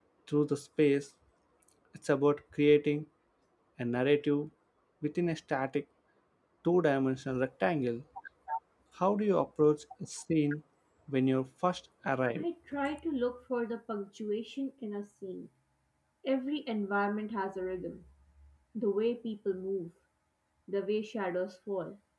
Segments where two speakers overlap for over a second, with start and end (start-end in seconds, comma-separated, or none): none